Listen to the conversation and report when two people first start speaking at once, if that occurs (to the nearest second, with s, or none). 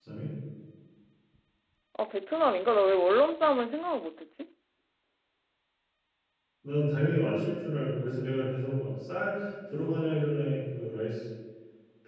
none